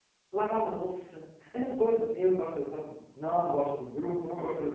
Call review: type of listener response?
listening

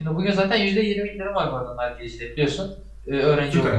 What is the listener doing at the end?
taking over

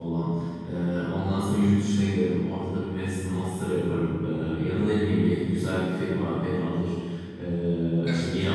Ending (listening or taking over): listening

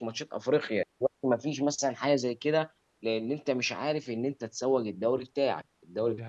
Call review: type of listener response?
listening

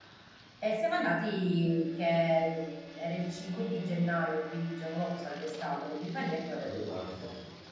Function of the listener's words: listening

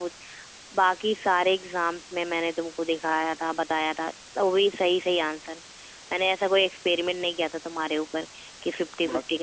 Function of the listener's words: listening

